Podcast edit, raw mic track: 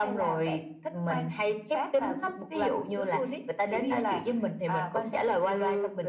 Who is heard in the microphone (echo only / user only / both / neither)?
echo only